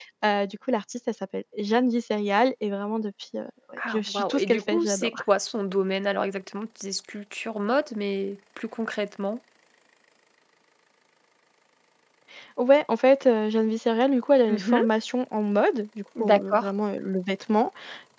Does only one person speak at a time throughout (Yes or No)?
No